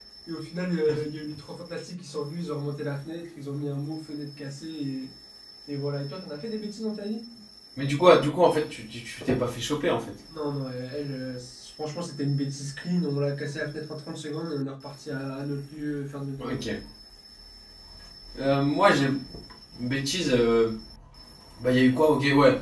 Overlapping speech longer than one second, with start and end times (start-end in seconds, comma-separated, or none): none